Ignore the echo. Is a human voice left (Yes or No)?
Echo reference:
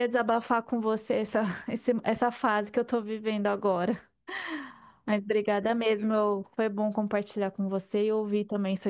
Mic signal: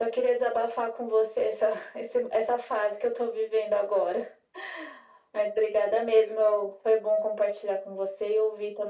No